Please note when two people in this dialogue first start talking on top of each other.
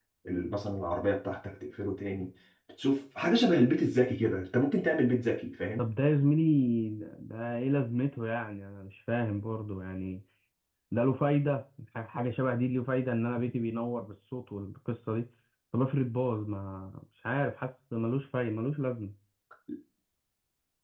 none

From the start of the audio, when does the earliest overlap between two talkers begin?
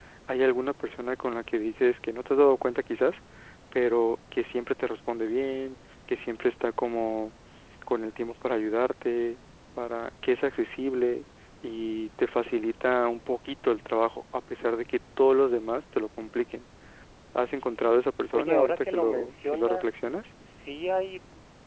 18.3 s

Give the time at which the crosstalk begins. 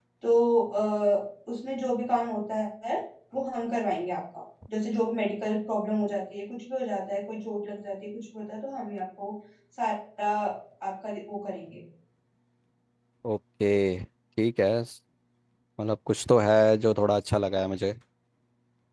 none

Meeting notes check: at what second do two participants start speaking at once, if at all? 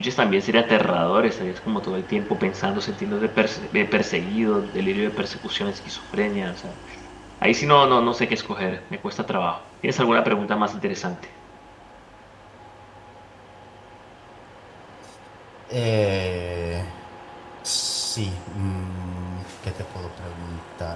none

